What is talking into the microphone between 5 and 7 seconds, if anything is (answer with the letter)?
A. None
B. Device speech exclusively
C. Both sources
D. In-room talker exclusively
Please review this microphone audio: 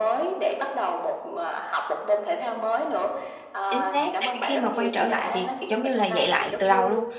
C